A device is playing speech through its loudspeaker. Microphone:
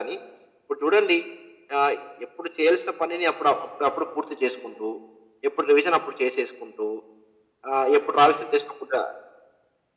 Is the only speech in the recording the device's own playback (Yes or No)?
Yes